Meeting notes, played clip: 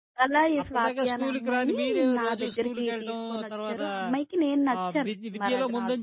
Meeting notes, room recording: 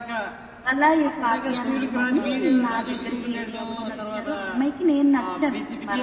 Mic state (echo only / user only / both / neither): both